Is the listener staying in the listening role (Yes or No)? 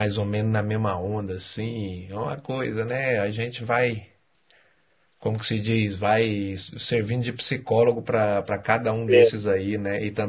Yes